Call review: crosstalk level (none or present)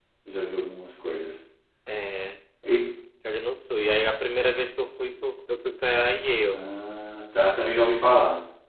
none